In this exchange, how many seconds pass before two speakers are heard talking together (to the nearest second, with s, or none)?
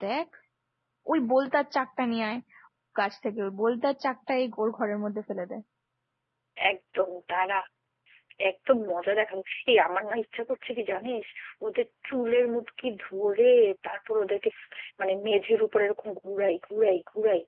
none